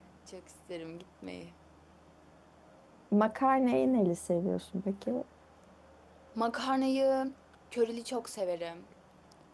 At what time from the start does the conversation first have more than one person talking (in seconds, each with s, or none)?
none